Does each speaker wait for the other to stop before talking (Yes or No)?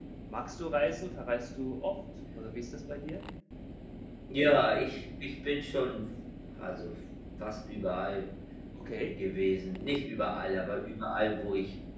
Yes